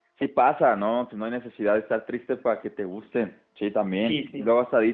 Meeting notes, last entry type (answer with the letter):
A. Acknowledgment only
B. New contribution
A